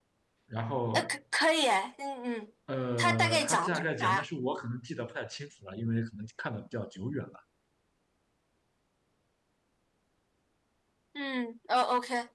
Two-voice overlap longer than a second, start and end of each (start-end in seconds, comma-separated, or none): 3.0-4.2